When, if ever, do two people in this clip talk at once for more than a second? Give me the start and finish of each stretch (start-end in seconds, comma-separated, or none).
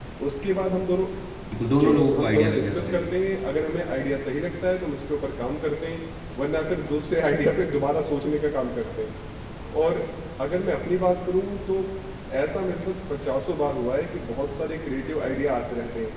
1.7-3.1